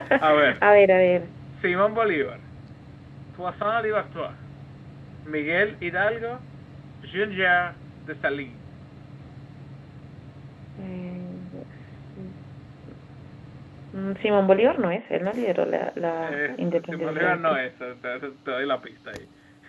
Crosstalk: present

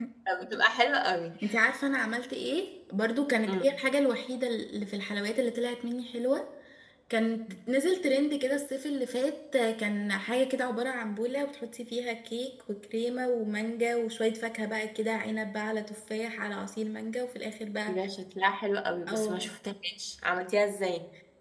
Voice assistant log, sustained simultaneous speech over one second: none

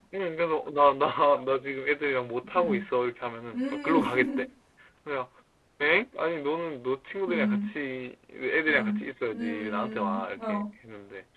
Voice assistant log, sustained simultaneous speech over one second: present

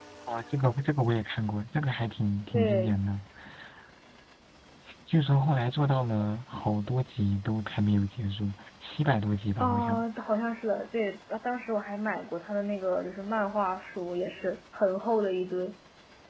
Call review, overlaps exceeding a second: none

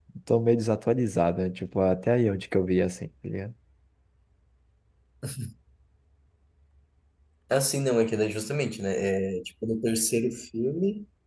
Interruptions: none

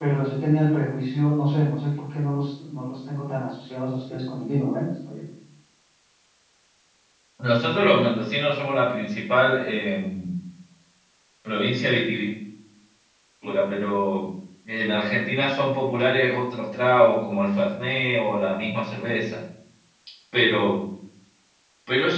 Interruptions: none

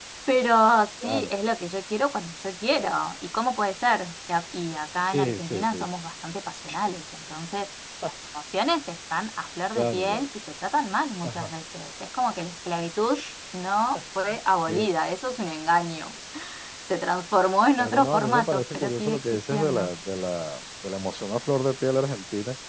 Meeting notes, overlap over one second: present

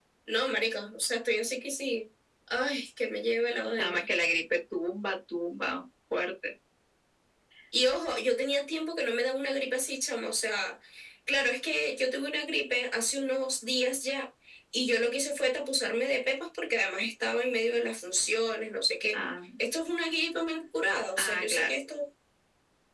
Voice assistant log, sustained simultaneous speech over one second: none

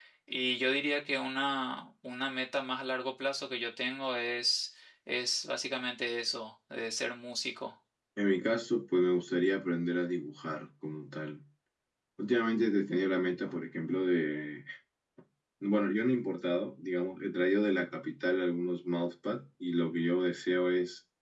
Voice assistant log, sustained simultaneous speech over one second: none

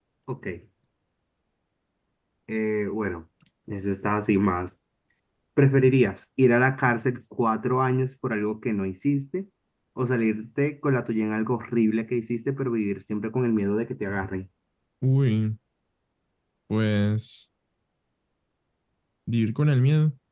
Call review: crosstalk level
none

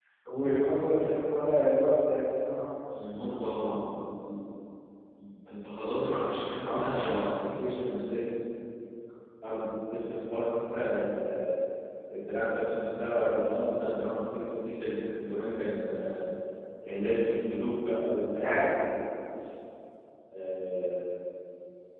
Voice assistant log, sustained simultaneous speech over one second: present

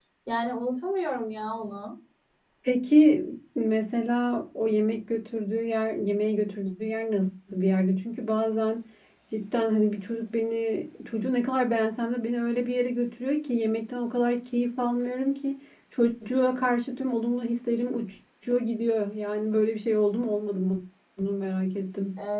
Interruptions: none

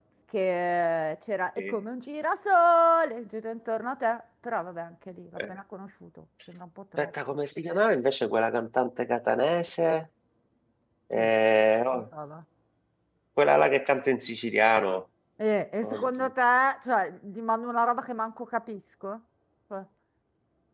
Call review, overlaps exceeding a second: none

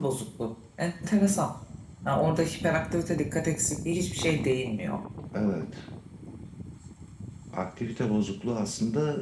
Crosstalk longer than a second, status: none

